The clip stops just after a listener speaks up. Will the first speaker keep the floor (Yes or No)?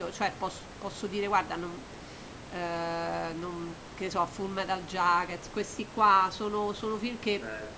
Yes